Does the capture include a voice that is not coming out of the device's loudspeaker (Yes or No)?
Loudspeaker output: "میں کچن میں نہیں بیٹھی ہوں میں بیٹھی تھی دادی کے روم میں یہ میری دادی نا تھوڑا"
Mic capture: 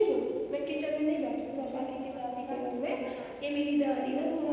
No